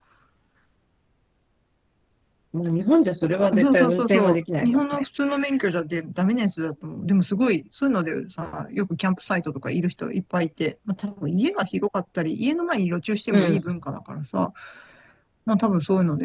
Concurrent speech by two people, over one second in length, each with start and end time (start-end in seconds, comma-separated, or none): 3.6-5.0